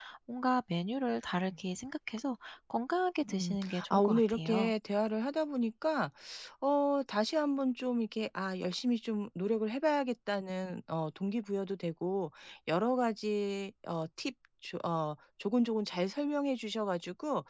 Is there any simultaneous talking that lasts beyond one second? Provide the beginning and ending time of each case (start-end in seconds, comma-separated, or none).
3.3-4.7